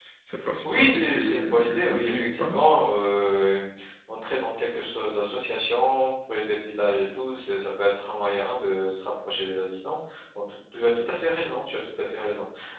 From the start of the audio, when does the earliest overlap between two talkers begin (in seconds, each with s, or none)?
0.6 s